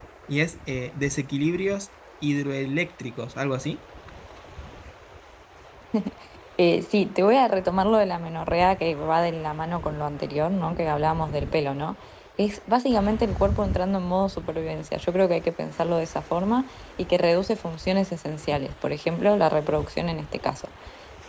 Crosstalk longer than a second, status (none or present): none